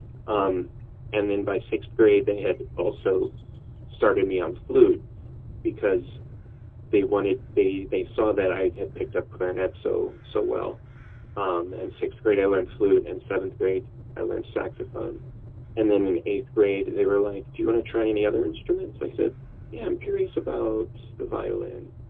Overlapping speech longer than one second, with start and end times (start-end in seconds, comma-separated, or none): none